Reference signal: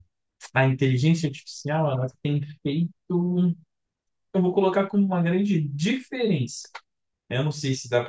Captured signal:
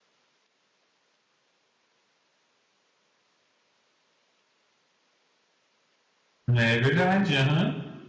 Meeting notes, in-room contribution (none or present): present